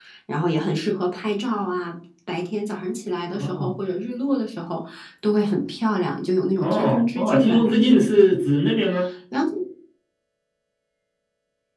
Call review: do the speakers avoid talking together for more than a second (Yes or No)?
No